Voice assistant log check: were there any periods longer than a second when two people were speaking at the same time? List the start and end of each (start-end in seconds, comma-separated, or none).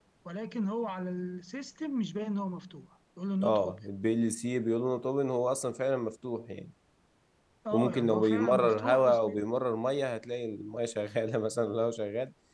7.7-9.4